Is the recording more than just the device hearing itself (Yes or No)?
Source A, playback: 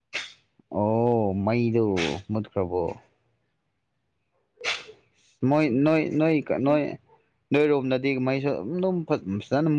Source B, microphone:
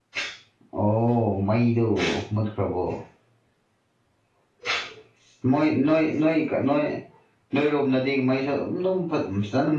No